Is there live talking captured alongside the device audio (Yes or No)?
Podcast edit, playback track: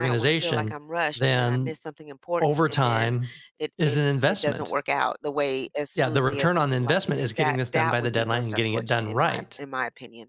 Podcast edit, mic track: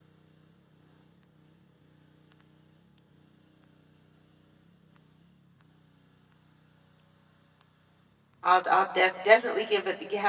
Yes